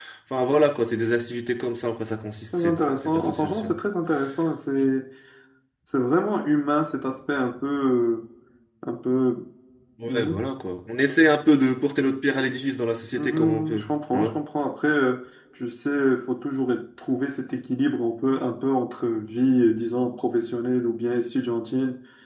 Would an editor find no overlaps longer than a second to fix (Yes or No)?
No